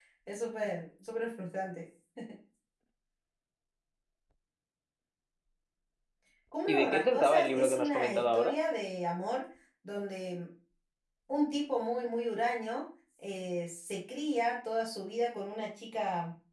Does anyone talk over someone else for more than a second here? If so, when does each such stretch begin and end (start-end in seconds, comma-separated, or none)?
6.7-8.6